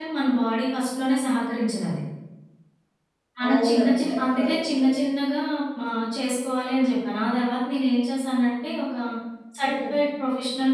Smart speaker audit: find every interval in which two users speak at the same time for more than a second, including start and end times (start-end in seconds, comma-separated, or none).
3.5-4.9